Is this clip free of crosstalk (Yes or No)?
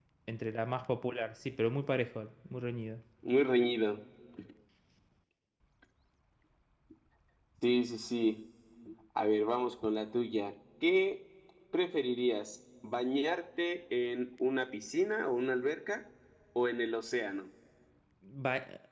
Yes